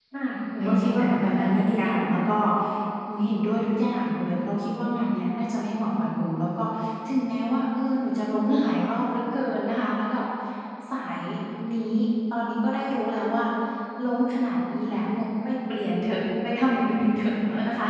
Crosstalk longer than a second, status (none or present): present